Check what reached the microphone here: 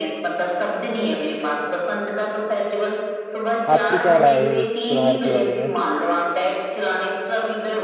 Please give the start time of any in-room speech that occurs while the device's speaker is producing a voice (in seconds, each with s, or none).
3.7 s